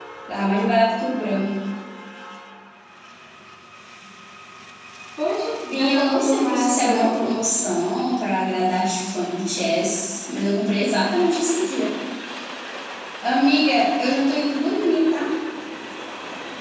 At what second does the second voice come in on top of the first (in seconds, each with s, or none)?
5.7 s